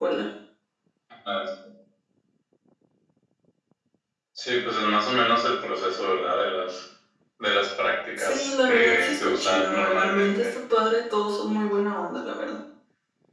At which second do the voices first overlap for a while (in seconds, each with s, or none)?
8.2 s